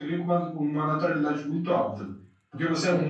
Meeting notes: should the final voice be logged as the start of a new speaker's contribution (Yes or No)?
No